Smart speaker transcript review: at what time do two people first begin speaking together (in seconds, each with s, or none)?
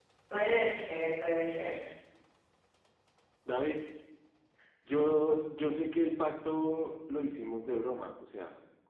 none